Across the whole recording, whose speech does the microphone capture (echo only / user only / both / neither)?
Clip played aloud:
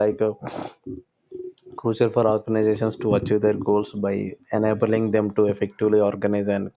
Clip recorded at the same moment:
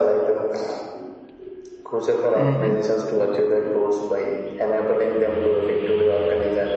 both